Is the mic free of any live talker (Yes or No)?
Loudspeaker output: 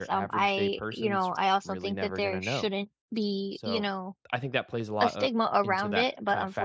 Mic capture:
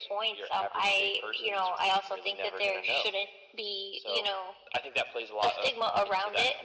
Yes